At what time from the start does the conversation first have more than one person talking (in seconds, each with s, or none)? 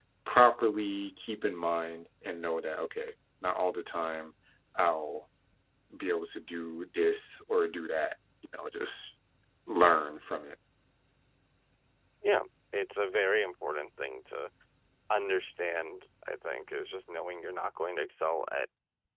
none